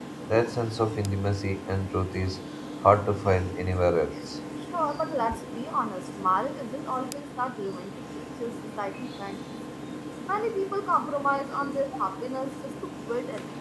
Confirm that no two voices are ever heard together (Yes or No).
Yes